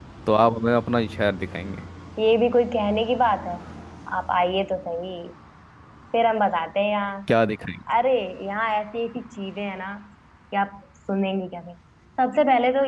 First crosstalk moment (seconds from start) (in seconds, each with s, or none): none